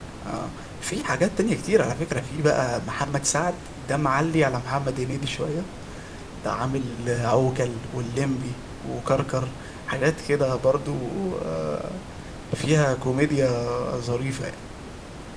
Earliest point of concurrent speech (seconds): none

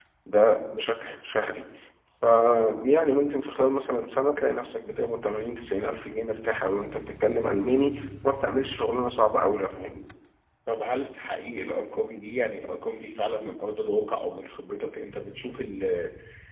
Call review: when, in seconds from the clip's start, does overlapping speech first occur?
none

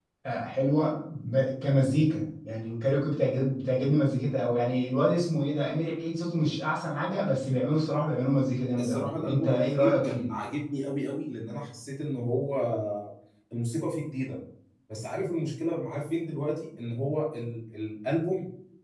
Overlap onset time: 8.8 s

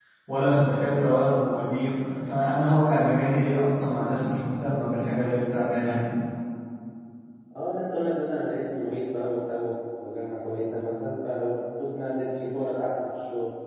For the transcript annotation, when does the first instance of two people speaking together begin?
none

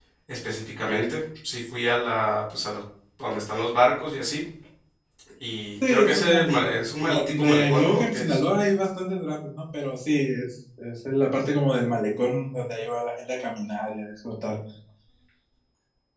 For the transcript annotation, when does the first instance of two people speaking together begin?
5.9 s

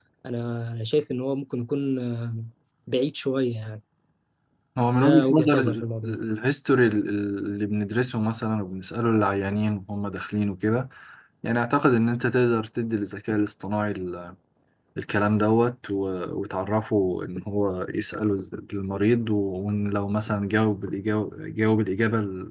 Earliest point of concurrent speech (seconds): 5.0 s

